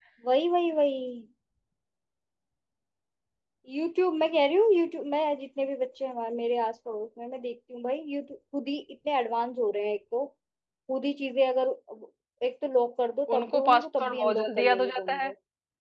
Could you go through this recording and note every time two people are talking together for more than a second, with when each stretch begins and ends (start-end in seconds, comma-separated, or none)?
13.4-15.3